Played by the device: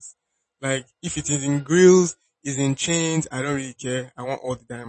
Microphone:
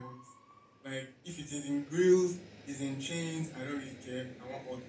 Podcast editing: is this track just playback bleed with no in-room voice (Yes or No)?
Yes